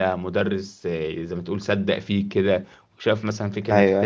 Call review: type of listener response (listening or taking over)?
listening